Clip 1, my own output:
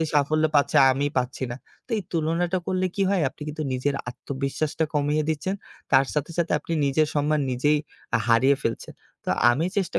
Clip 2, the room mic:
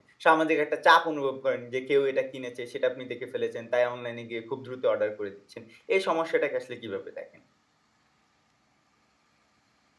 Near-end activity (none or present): present